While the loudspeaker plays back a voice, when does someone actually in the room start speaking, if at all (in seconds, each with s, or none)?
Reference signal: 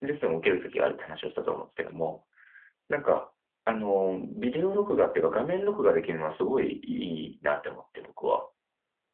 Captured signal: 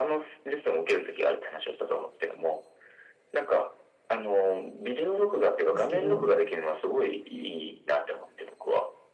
5.7 s